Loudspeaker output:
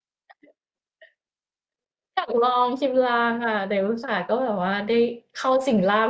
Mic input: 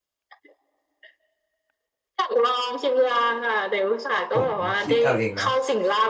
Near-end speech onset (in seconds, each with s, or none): 4.3 s